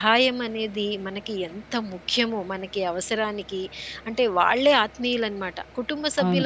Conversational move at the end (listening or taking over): listening